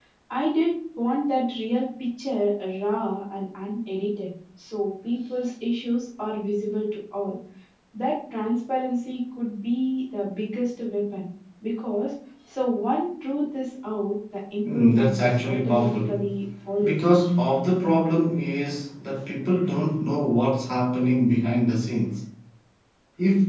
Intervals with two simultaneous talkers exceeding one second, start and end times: 14.7-16.1

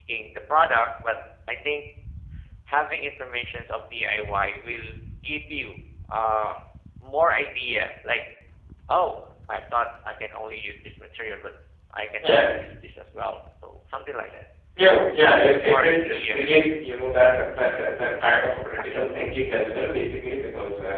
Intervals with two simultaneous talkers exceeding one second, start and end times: 15.2-16.9

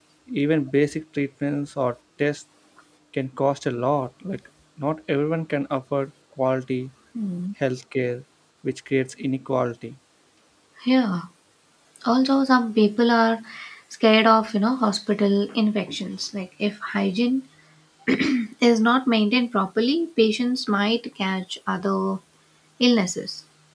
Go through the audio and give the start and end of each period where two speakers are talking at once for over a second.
none

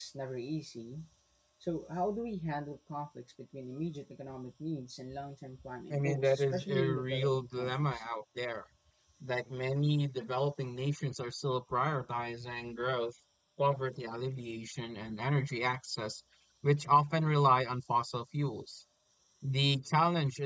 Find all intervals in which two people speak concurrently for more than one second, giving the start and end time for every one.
5.9-8.0

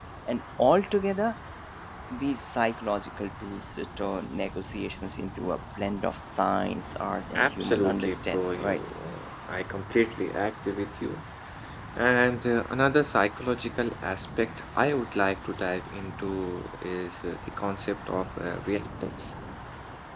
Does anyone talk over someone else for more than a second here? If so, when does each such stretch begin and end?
7.3-8.8

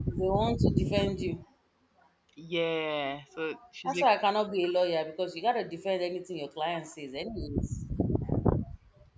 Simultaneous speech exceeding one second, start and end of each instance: none

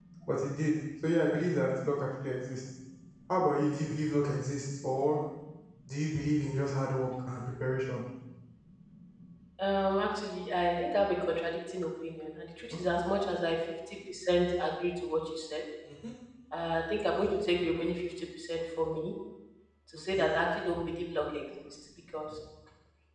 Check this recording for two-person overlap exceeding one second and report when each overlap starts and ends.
none

